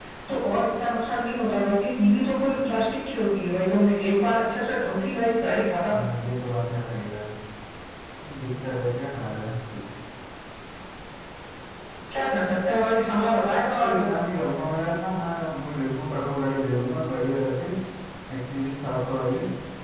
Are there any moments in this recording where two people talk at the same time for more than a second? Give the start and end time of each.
none

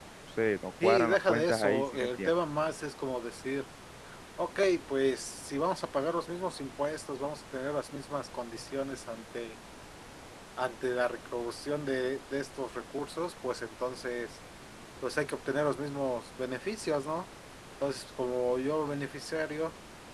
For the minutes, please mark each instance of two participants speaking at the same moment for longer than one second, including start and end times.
0.8-2.3

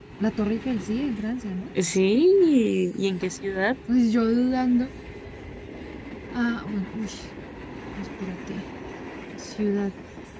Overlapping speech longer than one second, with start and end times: none

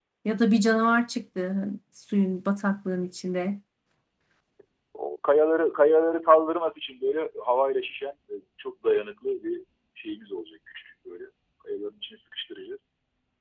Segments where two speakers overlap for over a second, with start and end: none

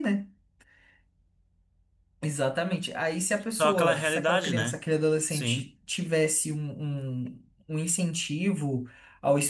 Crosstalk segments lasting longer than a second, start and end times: 3.6-4.8

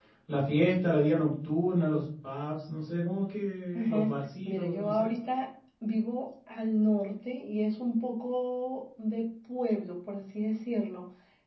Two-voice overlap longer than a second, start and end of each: 3.8-5.1

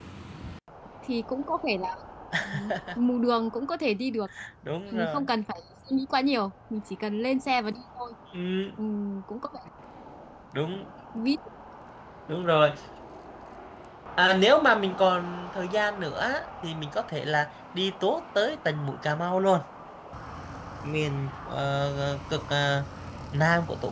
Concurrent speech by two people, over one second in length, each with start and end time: none

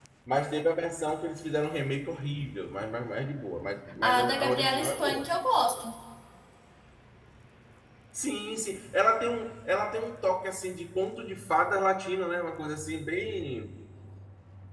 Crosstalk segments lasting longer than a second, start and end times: 4.0-5.3

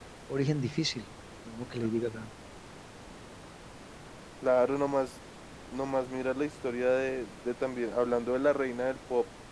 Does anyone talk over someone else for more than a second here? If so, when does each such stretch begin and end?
none

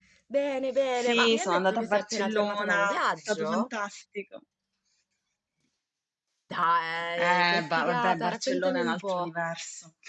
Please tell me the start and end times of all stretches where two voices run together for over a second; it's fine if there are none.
1.0-3.6, 7.2-9.3

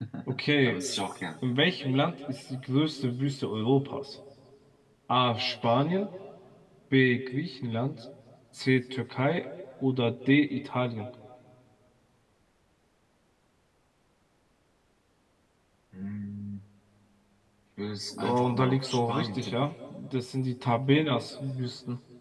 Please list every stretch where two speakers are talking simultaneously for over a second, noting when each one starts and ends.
18.1-19.7

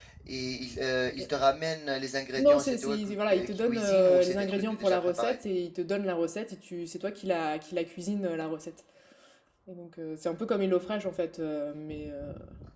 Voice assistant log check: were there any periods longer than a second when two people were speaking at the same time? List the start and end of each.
2.4-5.4

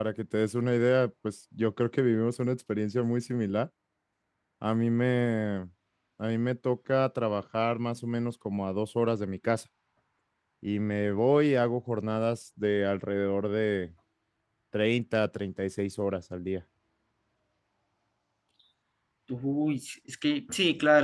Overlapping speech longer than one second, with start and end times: none

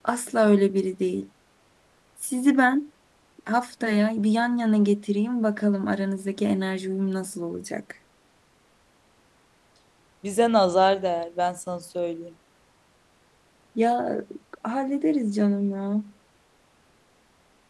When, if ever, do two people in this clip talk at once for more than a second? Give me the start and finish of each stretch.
none

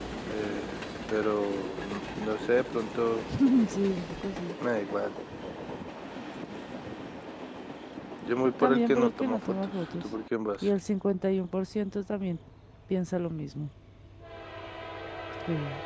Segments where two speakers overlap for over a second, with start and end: 8.6-10.0

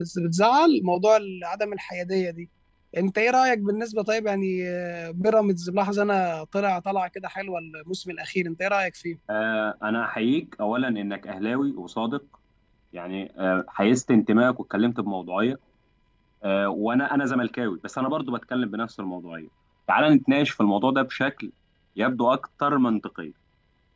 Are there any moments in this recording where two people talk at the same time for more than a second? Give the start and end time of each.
none

